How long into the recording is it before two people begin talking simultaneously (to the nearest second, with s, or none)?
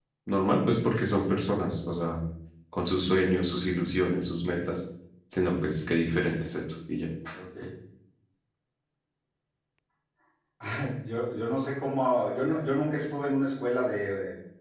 none